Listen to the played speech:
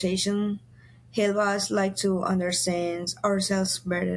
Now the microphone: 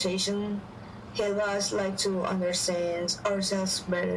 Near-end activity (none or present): none